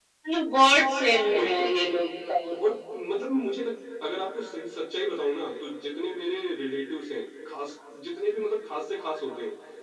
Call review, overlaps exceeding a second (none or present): none